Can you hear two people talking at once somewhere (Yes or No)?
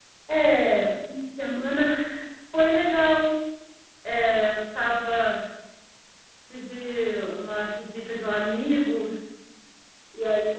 No